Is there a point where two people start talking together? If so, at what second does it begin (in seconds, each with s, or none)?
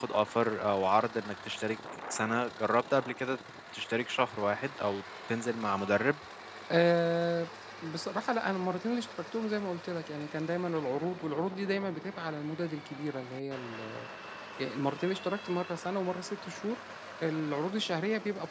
none